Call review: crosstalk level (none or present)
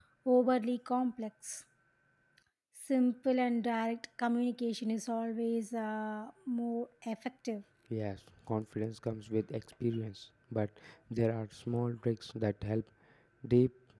none